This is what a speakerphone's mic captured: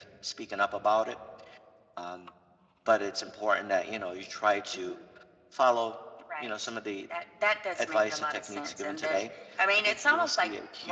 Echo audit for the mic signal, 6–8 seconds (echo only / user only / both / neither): echo only